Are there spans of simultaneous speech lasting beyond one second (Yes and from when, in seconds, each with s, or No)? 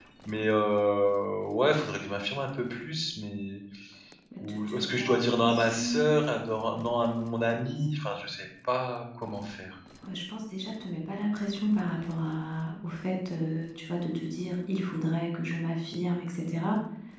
Yes, from 4.5 s